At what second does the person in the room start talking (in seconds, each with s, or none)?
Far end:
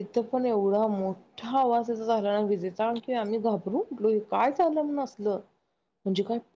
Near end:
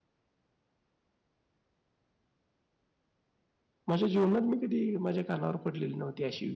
3.9 s